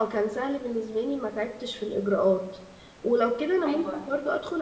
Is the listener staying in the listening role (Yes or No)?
Yes